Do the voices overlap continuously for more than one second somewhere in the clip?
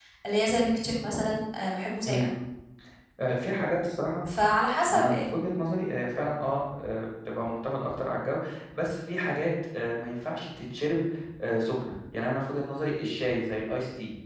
No

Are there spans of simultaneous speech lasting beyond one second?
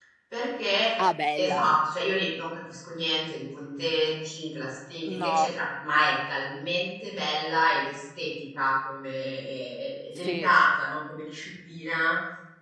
No

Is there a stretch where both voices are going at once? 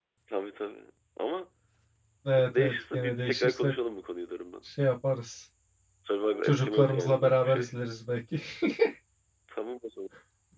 Yes, from 2.5 s

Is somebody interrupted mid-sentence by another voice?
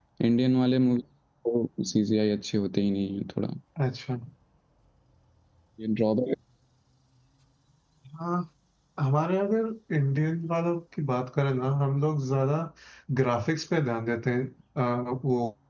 No

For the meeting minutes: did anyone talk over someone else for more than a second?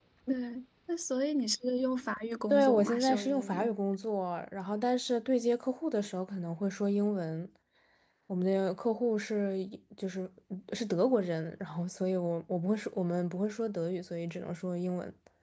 Yes, from 2.5 s

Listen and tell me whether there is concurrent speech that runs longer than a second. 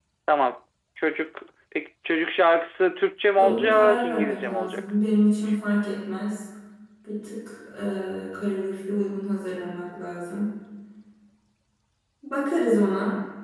Yes, from 3.4 s

